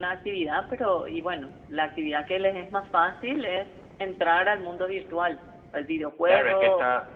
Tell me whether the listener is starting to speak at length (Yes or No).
Yes